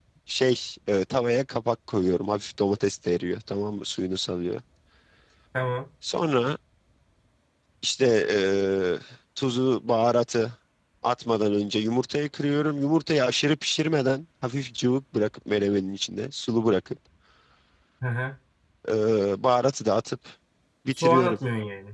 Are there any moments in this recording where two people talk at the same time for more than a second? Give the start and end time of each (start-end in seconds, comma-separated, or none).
none